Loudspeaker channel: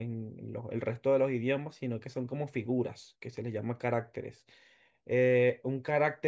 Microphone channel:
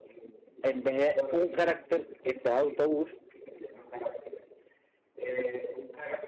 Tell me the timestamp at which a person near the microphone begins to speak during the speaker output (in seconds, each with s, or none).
0.6 s